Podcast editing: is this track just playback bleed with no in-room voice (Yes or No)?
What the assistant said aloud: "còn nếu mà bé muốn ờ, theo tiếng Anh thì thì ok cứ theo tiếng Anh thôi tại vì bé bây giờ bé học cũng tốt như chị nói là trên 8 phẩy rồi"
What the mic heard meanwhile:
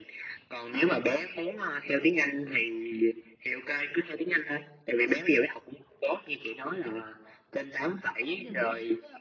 No